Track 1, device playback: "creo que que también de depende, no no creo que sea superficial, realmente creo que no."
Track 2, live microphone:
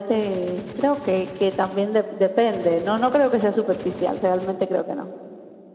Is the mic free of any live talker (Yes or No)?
Yes